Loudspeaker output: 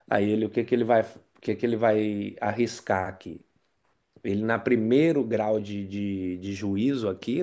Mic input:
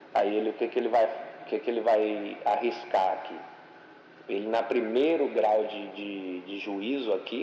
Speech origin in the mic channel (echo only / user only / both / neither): echo only